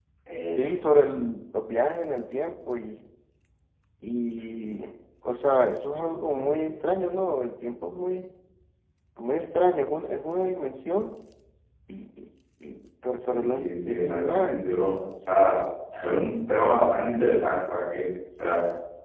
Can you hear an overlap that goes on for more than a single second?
Yes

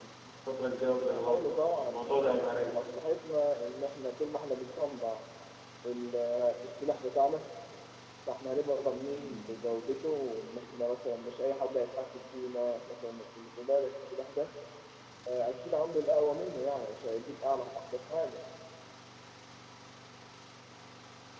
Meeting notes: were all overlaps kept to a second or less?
No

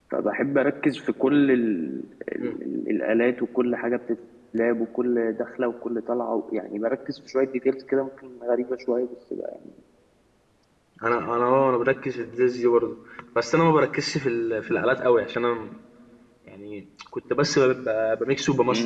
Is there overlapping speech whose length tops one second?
No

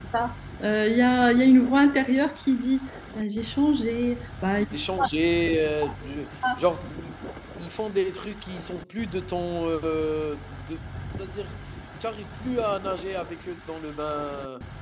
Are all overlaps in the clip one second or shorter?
Yes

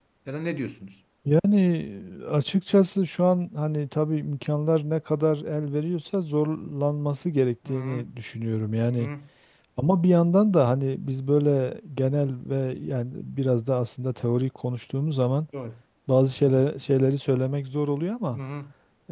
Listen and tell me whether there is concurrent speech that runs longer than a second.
No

